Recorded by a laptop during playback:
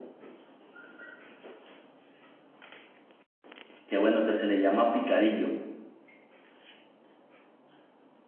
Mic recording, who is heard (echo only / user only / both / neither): user only